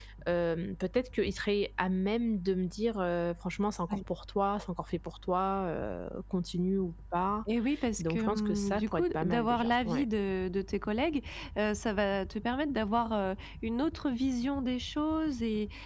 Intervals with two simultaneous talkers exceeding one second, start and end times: 8.0-10.1

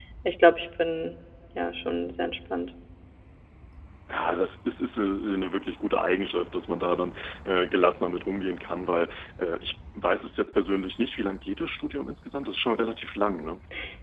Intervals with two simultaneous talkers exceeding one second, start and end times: none

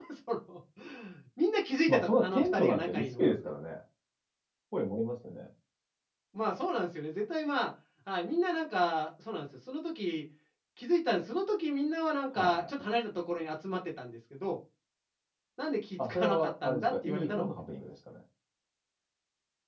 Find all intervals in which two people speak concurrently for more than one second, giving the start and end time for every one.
1.9-3.3, 16.1-17.6

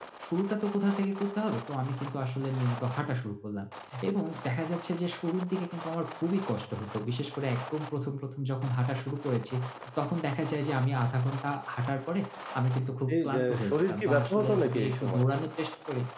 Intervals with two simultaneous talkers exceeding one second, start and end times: 13.1-15.3

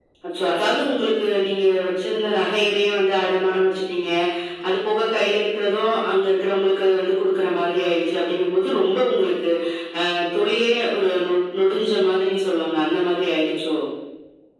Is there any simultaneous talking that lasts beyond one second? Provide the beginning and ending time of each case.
none

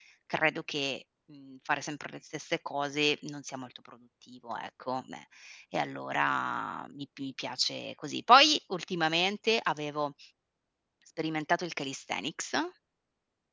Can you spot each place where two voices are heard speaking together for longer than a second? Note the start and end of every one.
none

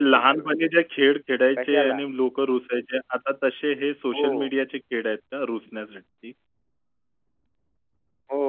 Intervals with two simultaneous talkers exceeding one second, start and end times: none

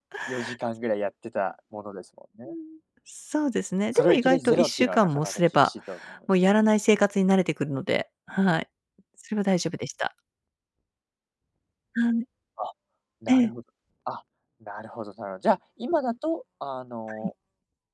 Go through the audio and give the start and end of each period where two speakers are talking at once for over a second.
3.9-5.7

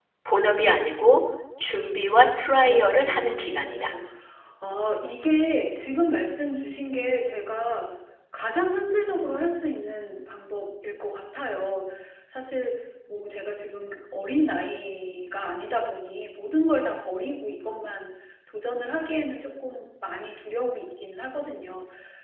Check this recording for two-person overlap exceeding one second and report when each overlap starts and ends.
2.6-3.9

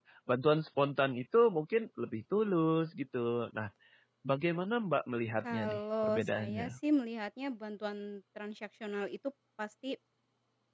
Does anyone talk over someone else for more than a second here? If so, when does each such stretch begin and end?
5.4-6.7

